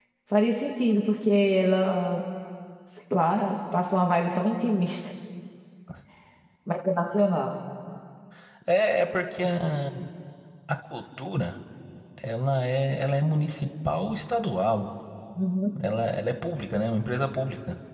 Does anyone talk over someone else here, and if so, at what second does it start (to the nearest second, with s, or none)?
none